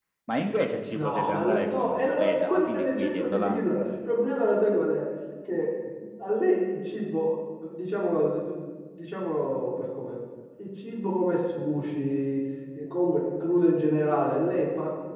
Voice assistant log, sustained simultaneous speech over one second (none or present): present